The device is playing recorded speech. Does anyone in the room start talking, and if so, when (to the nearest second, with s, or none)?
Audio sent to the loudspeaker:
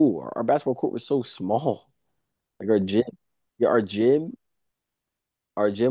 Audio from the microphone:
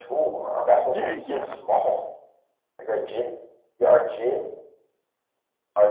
1 s